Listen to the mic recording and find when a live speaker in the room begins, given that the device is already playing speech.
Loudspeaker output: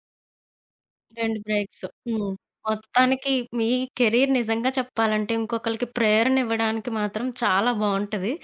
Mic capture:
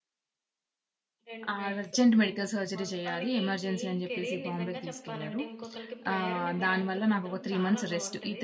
2 s

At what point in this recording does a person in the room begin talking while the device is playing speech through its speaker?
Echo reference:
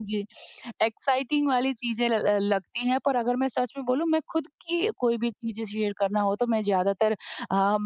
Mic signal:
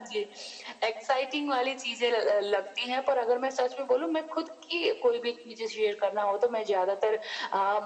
none

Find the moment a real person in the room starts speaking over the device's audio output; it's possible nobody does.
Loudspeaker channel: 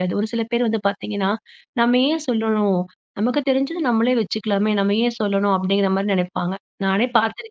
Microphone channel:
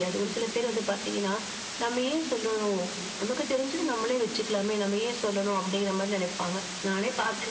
none

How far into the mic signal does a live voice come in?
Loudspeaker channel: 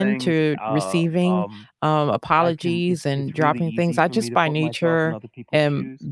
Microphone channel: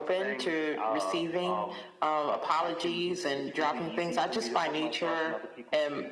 none

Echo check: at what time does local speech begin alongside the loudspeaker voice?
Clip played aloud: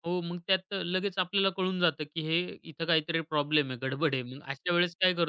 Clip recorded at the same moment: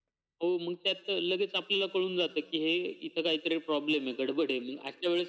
none

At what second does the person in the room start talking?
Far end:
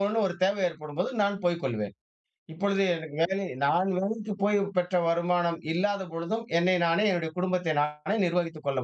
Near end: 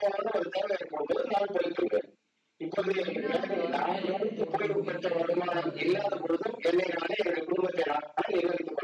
3 s

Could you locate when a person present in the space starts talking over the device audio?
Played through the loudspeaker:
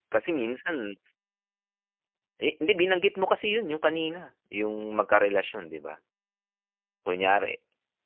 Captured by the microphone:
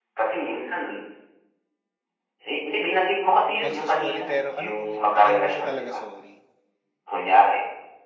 4 s

